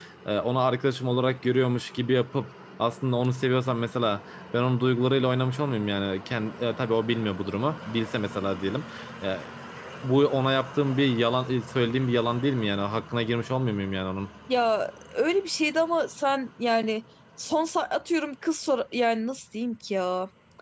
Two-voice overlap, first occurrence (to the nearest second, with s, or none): none